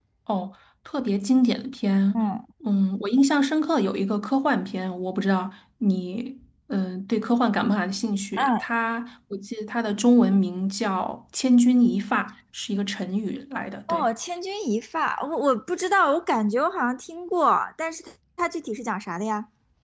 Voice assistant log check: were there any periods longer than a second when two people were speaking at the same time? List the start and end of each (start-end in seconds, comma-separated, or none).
none